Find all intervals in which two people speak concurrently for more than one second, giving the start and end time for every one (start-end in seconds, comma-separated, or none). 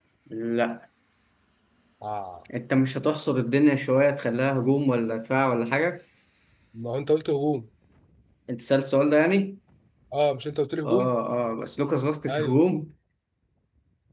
none